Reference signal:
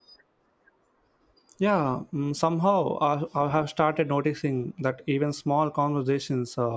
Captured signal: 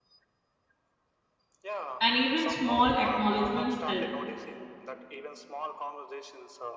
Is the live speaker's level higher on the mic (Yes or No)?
Yes